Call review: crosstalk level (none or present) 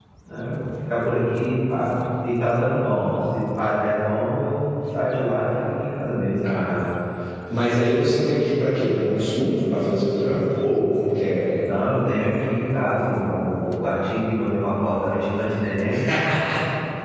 none